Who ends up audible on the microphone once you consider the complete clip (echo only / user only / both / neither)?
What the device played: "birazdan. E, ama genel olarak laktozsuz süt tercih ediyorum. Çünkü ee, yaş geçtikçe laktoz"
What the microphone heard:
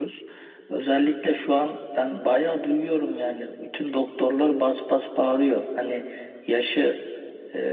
user only